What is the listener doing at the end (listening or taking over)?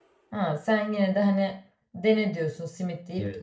taking over